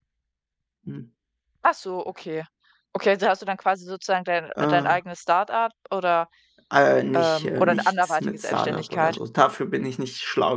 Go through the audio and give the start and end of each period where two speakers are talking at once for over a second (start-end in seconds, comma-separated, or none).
7.1-9.2